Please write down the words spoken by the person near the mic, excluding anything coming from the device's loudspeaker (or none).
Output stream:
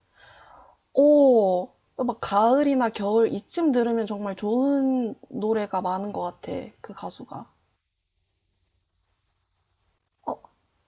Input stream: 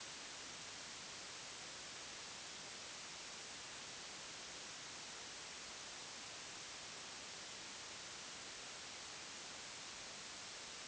none